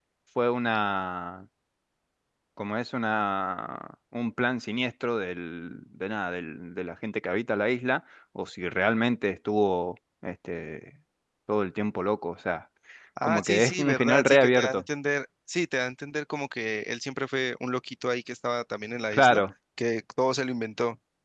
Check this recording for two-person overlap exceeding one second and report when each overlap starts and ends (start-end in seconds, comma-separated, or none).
13.2-14.8